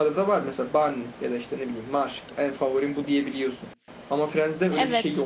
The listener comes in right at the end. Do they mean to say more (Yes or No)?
Yes